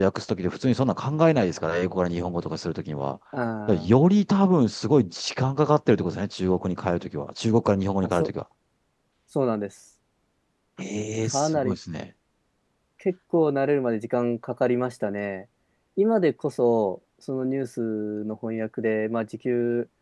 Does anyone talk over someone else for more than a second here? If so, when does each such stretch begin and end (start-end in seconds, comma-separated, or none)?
none